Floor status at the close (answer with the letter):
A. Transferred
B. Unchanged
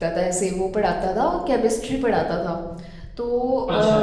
B